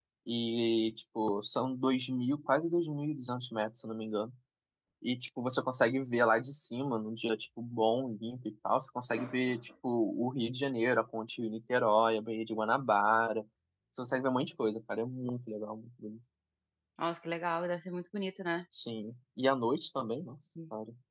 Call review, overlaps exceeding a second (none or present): none